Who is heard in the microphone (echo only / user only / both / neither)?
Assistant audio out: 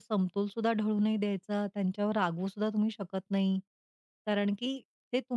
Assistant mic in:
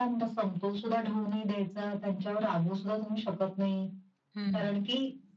both